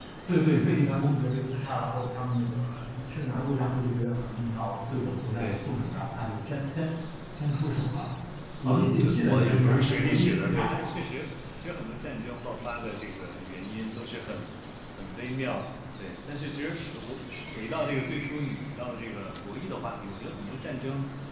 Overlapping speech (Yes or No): Yes